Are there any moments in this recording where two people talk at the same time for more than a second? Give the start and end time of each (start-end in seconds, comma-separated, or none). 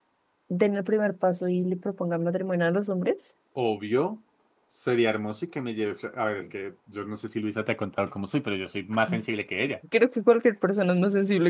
none